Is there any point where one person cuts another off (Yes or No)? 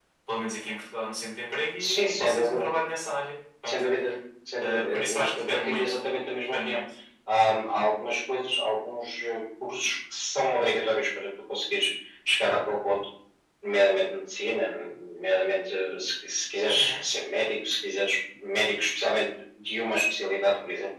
Yes